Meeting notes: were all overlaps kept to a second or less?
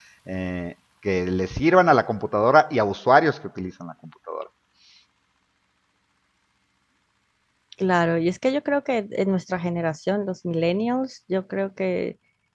Yes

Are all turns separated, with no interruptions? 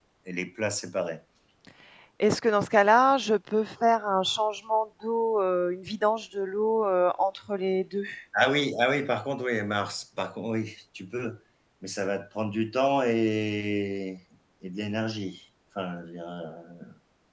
Yes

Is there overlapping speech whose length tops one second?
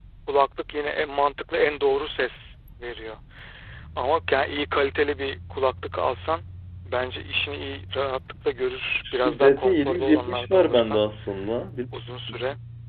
Yes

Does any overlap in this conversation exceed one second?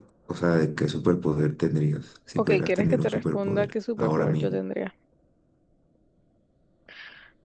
Yes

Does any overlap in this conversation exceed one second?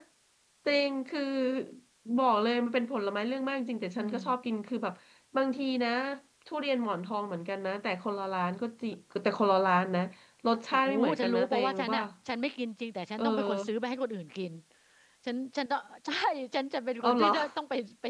Yes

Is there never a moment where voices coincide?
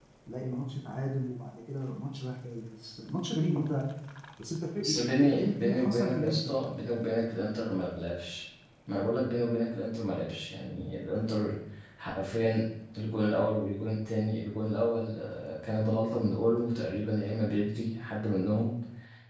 No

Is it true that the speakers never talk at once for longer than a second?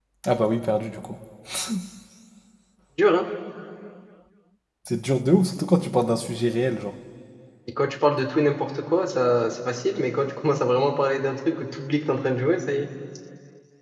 Yes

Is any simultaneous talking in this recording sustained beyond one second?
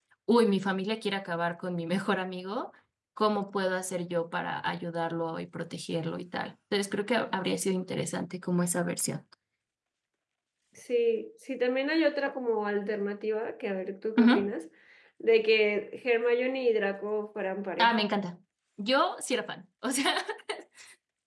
No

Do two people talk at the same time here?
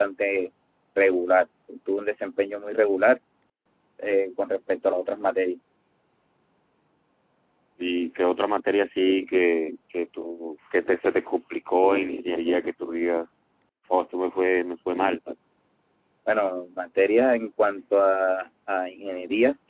No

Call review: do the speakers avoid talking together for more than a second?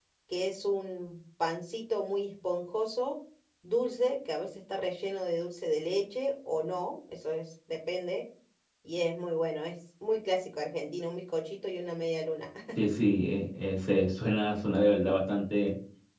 Yes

